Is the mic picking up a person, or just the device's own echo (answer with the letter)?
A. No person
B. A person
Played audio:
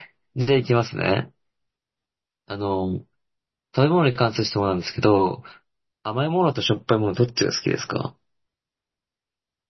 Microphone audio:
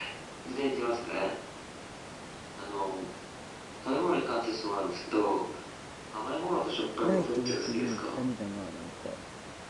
B